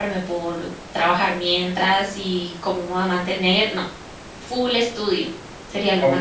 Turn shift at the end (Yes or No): Yes